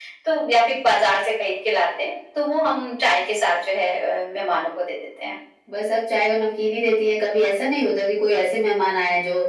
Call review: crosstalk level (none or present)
none